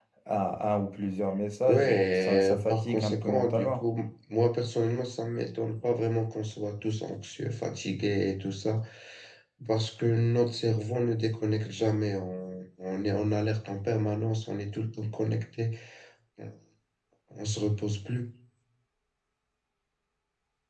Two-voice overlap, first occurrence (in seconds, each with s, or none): 1.6 s